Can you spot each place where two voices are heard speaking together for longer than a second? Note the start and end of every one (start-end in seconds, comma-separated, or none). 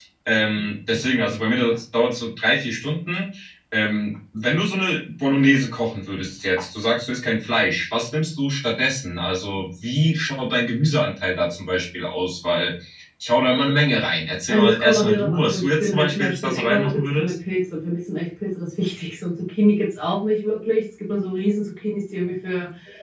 14.5-17.3